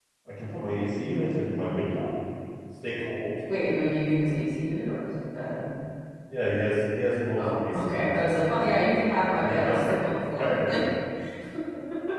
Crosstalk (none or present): present